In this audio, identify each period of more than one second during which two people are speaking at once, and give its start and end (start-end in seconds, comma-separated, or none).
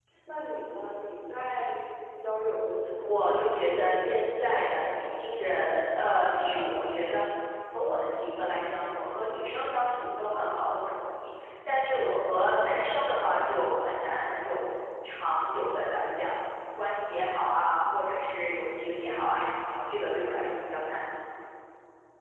3.1-5.1